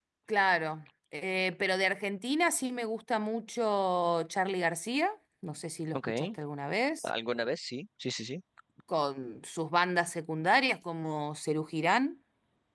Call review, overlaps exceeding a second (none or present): none